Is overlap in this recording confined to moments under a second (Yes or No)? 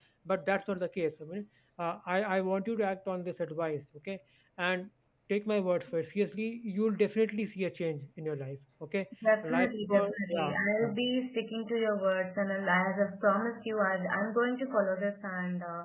No